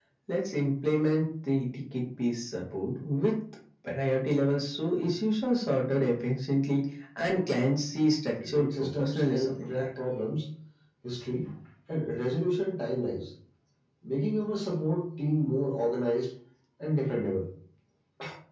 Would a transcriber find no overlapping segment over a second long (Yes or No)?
No